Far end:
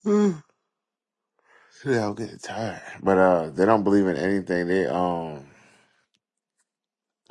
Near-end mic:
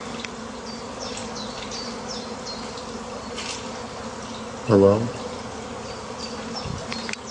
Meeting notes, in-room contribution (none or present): present